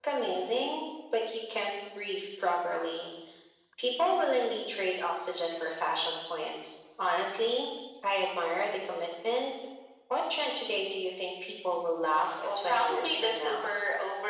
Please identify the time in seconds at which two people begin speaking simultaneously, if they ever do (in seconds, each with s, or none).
12.2 s